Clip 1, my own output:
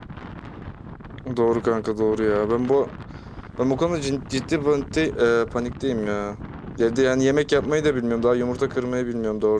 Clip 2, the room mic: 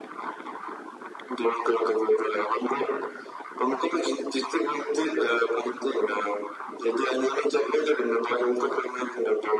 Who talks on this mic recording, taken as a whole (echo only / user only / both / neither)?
echo only